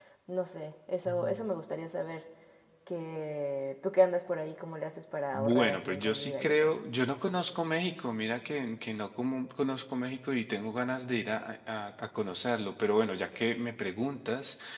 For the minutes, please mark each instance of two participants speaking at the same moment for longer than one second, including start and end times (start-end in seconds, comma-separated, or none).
5.4-6.7